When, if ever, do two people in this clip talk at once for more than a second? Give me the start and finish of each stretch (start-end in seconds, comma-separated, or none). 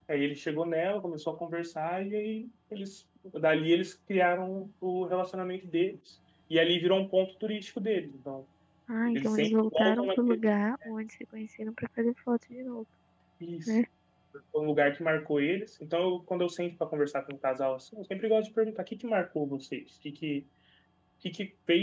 9.1-10.4